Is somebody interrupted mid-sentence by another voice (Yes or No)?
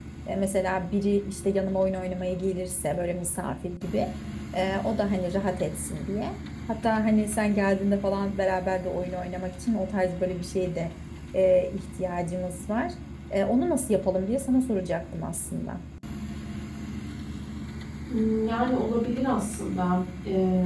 No